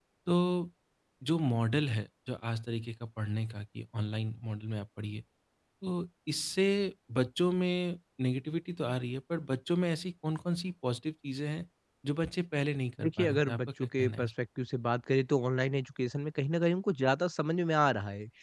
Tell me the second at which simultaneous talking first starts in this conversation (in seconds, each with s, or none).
13.0 s